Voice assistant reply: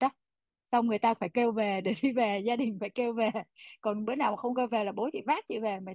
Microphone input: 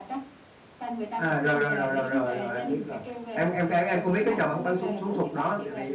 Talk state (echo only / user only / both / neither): both